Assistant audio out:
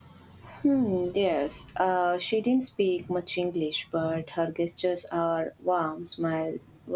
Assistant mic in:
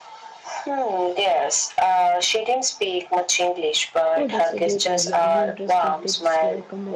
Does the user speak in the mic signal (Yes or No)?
Yes